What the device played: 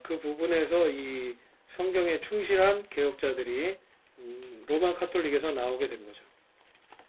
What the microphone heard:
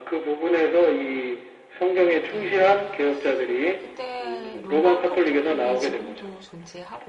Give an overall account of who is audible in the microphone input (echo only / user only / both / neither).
both